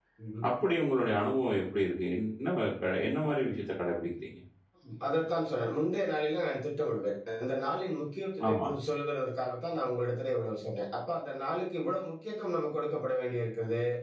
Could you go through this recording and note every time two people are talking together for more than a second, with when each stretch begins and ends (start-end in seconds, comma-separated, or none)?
none